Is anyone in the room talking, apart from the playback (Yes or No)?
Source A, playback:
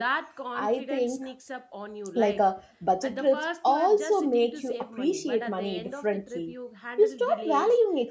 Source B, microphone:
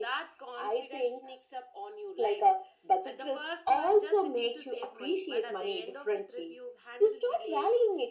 No